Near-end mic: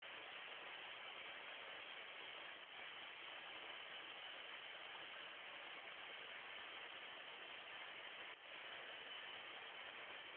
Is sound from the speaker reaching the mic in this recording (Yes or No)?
No